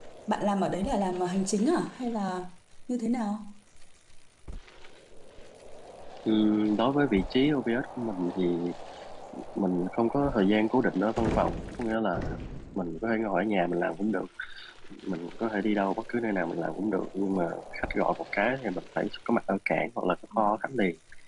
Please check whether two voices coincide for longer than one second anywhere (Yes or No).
No